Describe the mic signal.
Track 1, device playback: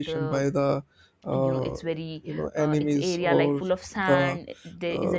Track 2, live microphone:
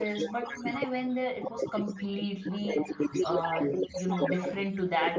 both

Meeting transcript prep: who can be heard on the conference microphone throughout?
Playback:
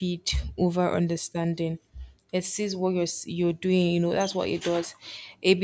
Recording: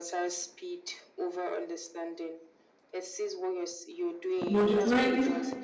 both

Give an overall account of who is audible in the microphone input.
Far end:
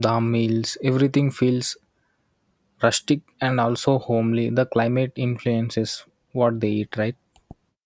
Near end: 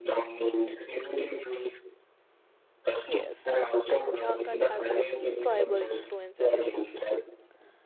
both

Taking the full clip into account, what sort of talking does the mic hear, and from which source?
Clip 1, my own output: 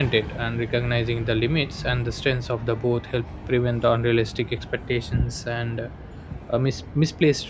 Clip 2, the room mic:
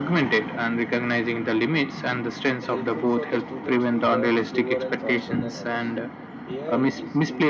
both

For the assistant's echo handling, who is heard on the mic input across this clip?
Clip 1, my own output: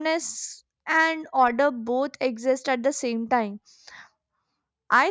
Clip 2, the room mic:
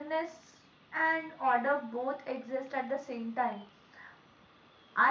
echo only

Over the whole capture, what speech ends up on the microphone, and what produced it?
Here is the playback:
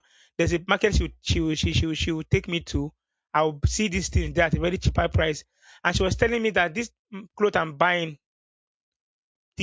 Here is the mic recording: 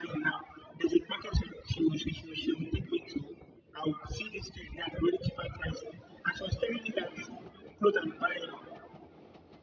echo only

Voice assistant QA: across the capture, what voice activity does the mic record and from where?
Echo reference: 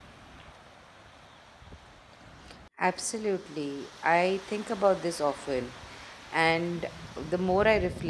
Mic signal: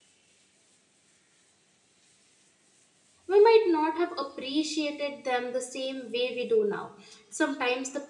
user only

